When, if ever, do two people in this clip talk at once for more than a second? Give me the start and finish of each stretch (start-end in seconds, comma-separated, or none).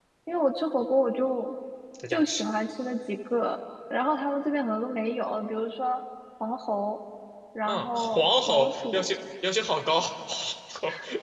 7.6-9.1